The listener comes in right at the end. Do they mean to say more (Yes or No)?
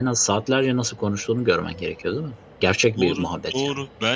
Yes